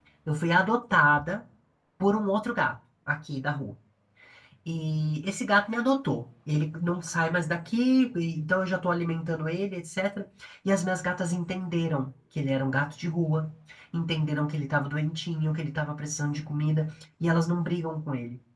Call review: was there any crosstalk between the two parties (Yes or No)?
No